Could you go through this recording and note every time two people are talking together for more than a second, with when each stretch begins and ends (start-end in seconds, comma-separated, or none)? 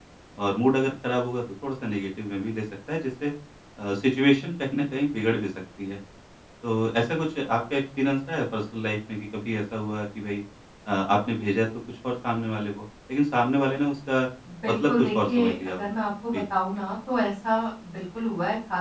14.6-15.9